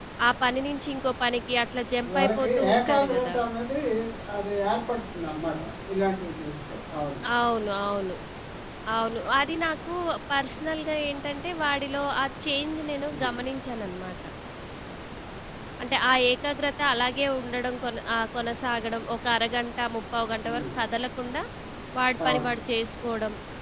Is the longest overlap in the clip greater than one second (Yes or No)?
Yes